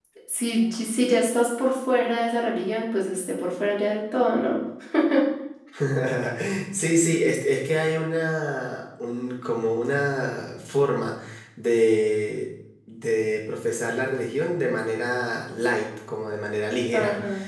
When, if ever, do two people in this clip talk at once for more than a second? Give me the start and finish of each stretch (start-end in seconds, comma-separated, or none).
none